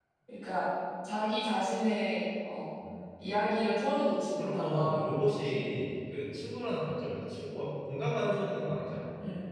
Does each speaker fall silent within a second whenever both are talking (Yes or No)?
No